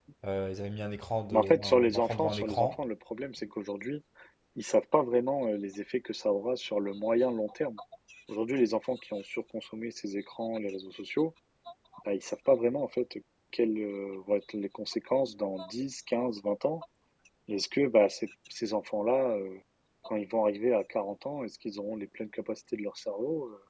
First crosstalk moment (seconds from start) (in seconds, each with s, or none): 1.3 s